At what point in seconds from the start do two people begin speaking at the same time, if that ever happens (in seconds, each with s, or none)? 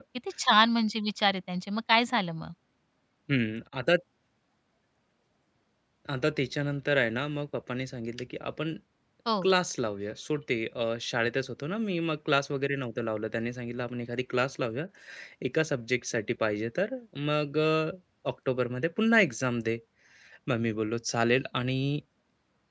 none